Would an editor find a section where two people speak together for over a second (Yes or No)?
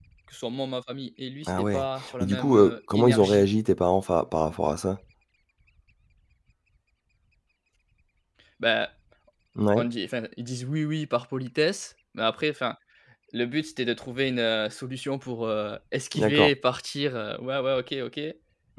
Yes